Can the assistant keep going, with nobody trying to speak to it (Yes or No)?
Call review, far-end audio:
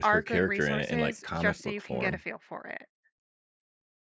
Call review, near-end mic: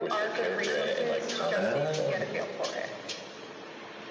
No